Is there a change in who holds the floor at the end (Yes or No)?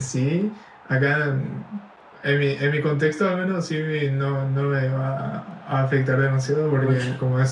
No